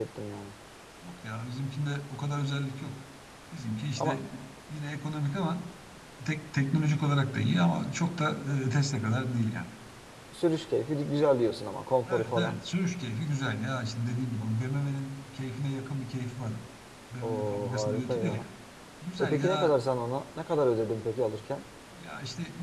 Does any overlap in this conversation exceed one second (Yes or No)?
Yes